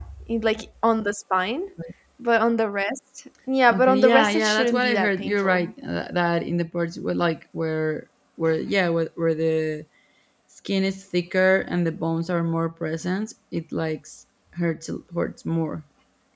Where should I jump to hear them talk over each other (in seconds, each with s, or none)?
3.7 s